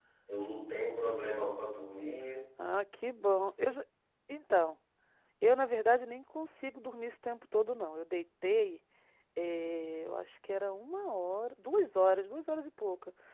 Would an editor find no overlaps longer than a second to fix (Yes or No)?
Yes